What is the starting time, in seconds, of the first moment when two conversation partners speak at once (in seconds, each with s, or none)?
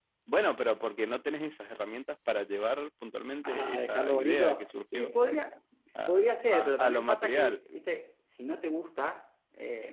3.4 s